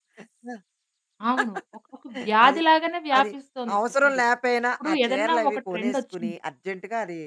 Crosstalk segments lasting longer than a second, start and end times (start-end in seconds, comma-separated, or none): 4.8-6.3